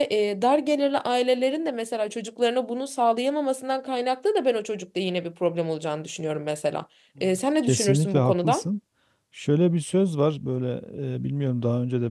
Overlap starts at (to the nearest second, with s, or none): 7 s